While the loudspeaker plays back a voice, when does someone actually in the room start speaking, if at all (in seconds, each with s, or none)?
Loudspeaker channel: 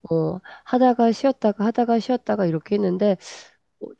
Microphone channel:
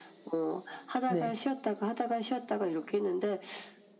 1.1 s